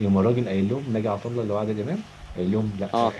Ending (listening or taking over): listening